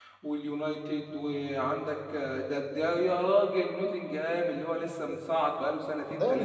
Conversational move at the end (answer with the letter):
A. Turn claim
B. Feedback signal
A